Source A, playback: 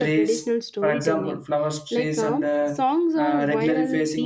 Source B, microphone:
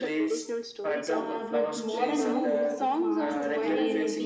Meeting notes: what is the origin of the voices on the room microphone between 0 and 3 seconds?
both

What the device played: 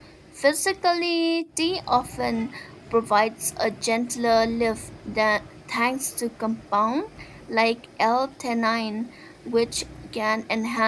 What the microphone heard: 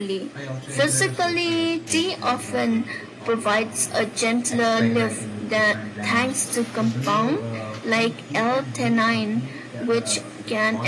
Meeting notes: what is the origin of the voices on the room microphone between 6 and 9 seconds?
both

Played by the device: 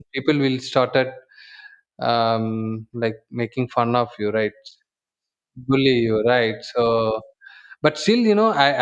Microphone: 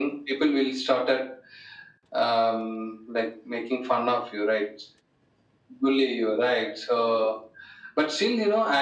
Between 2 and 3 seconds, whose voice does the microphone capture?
echo only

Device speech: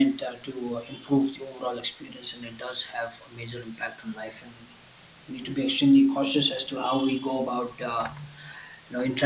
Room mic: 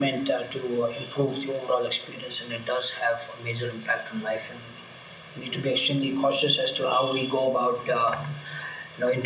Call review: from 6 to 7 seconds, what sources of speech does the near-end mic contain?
echo only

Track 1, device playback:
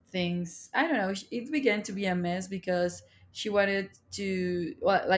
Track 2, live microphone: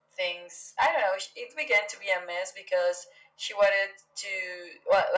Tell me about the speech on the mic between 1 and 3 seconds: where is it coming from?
echo only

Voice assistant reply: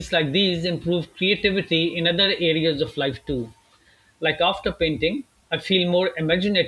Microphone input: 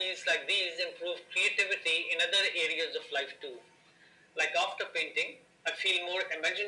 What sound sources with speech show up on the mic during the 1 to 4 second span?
echo only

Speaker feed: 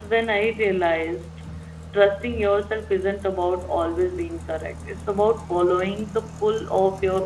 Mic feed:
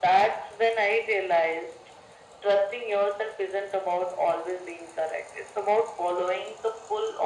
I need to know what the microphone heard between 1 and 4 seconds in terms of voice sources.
echo only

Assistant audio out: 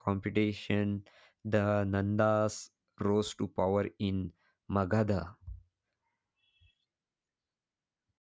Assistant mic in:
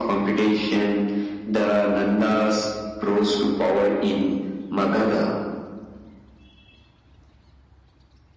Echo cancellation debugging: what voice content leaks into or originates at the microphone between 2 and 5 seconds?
echo only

